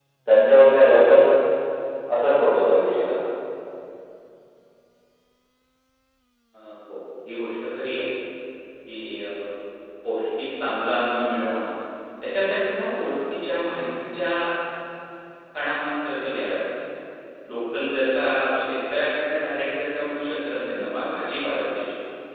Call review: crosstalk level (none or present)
none